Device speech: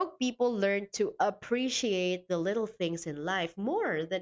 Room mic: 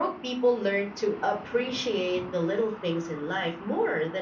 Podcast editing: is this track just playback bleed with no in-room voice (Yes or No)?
Yes